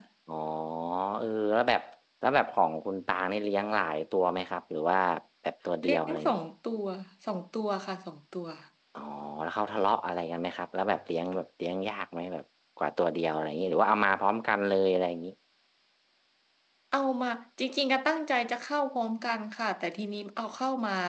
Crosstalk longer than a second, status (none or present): none